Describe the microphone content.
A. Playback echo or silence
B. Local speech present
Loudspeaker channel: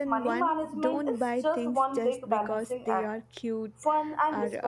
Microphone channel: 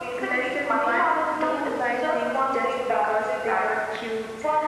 A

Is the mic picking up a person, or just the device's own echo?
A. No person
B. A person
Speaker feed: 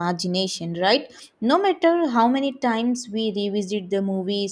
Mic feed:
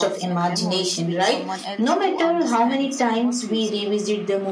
B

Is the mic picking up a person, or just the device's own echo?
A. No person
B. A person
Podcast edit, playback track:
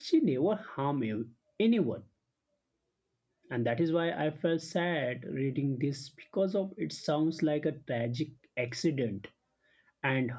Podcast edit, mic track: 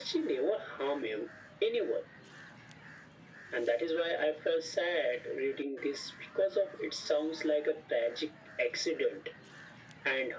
A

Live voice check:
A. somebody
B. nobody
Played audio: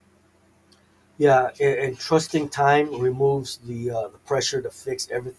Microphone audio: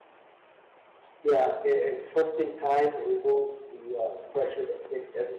B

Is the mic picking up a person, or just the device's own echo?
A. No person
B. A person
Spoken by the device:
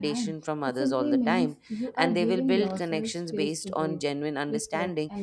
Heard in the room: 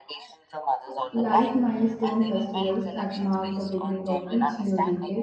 B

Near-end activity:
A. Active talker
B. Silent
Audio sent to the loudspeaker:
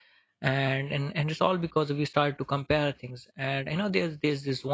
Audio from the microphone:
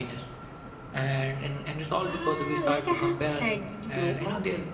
A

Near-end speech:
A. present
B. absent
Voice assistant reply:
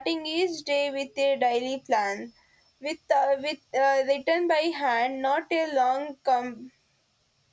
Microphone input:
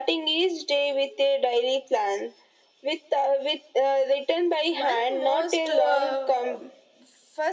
A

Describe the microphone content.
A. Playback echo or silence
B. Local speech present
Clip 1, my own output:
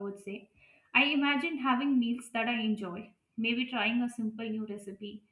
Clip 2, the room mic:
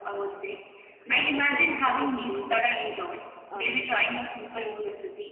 B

